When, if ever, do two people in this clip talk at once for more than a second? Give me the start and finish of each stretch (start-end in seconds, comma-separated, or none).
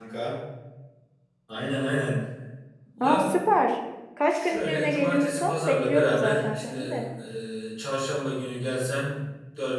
4.3-6.9